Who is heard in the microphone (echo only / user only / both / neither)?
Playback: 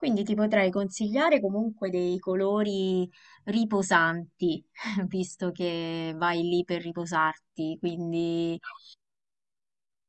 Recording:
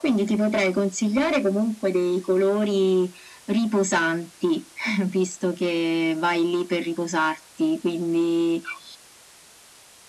echo only